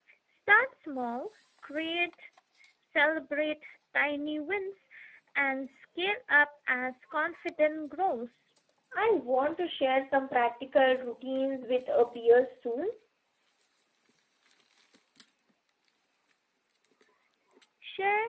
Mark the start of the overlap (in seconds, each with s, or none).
none